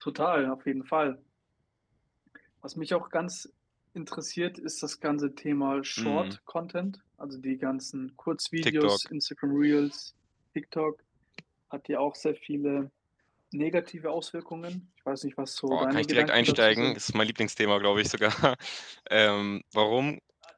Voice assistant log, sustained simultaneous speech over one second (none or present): present